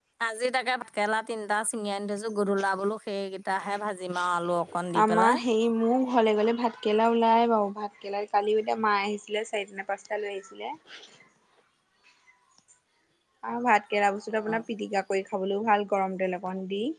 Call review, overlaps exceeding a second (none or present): none